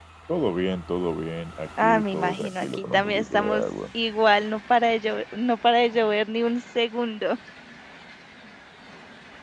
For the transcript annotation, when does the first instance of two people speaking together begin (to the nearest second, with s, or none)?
2 s